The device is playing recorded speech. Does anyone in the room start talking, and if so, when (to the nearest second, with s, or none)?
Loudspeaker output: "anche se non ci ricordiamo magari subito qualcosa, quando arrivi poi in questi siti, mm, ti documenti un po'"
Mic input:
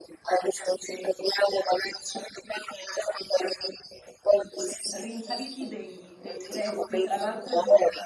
5 s